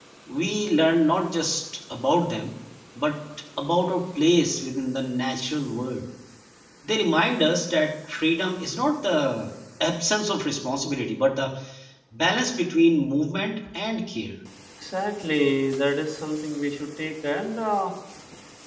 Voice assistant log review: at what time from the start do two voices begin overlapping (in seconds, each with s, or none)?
none